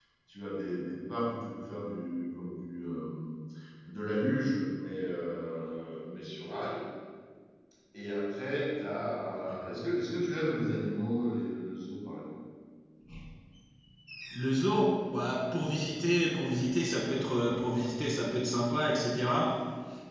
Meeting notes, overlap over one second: none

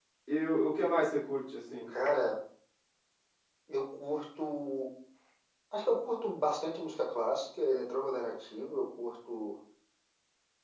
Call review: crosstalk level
none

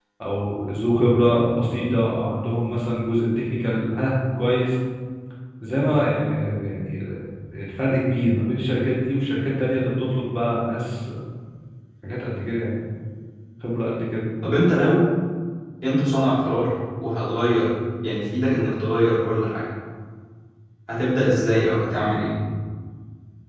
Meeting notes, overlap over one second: none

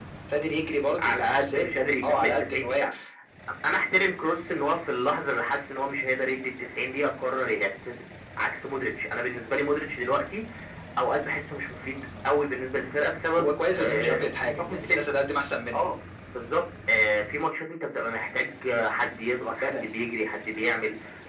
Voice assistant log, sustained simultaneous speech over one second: present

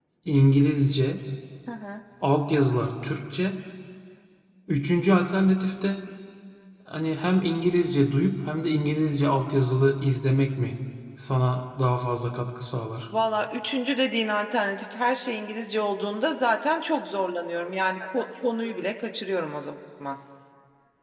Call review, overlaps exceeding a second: none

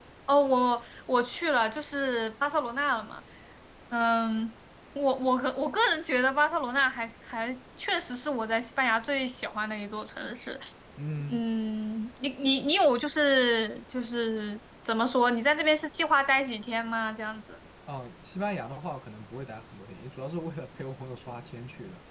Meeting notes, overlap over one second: none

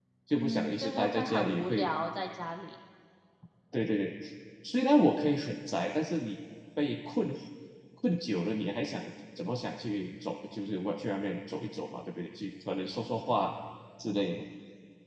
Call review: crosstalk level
present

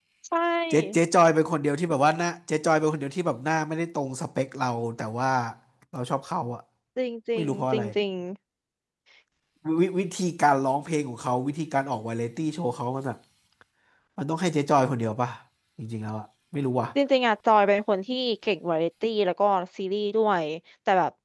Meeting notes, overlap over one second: none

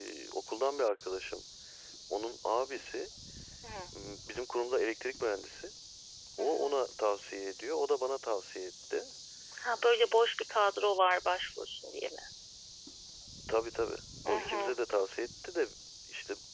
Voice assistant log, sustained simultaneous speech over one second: none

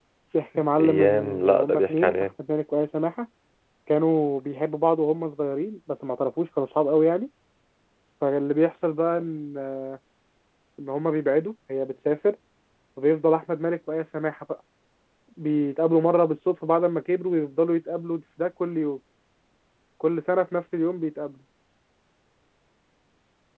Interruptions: present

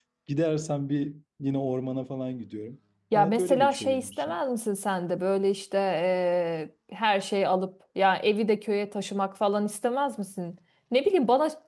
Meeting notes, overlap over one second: present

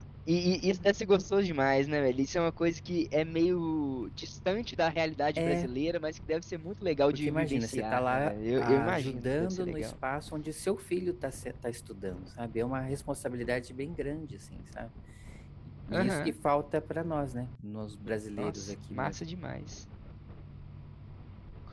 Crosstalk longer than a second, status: present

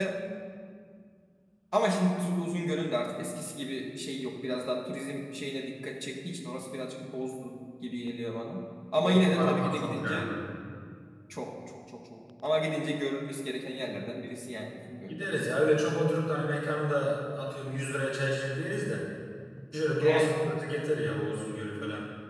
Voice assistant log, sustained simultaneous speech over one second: present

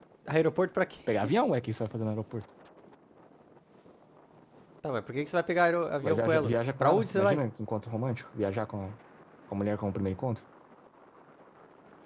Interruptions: present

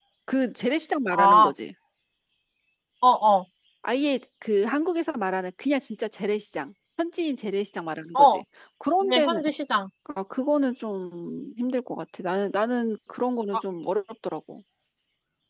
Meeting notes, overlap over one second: none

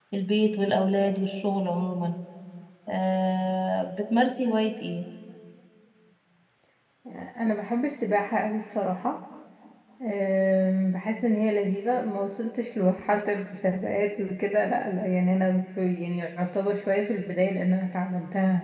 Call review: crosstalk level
none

